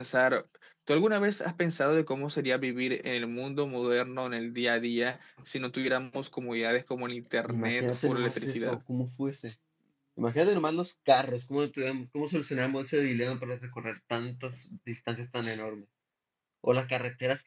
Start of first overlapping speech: 7.5 s

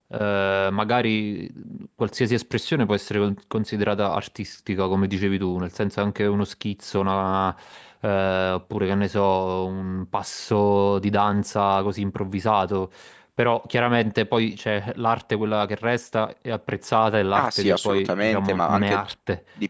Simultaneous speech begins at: 17.4 s

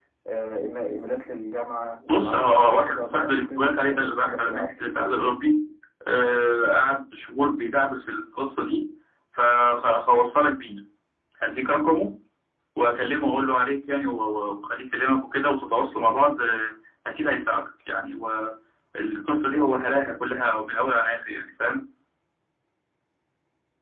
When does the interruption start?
2.1 s

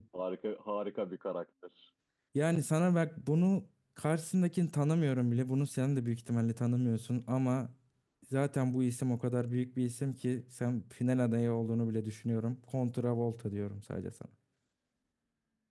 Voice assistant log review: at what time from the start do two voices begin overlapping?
none

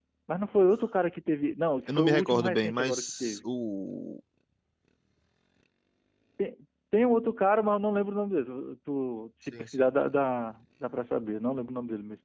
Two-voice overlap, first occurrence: 1.9 s

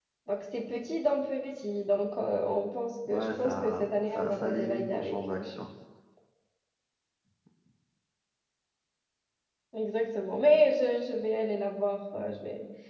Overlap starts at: 3.0 s

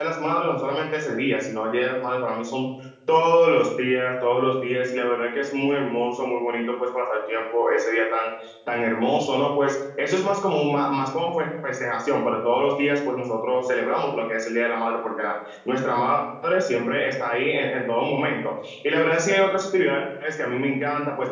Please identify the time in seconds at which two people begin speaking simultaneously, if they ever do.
none

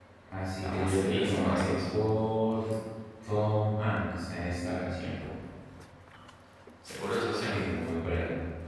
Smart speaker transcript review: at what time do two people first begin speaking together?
0.6 s

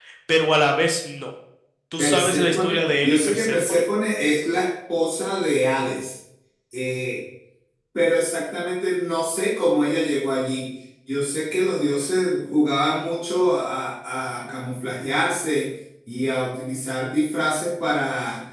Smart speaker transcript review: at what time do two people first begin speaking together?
2.0 s

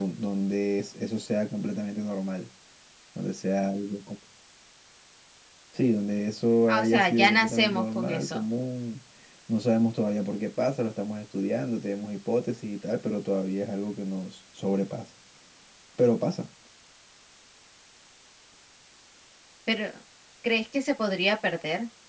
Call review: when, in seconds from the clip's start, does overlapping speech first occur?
6.7 s

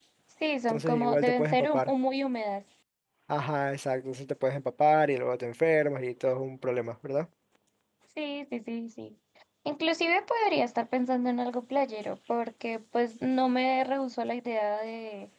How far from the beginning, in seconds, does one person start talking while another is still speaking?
0.7 s

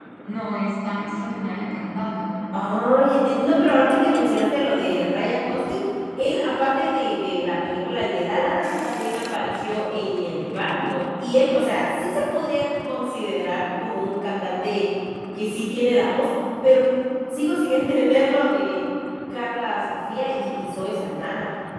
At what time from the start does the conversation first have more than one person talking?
none

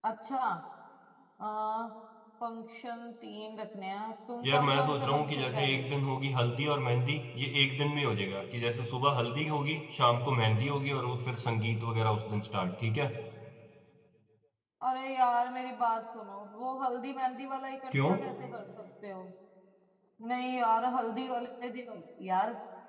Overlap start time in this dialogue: 4.4 s

